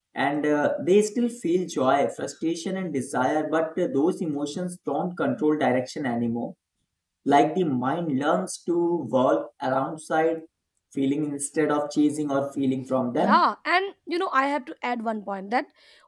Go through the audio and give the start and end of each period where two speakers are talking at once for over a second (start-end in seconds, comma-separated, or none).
none